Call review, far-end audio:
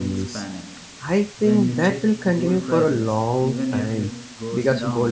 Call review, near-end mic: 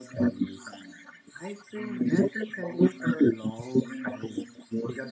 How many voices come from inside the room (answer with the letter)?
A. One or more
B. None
B